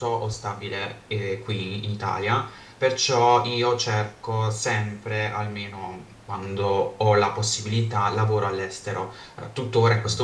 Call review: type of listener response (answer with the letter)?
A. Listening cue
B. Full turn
A